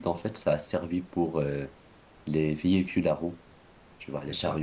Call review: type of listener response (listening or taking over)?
listening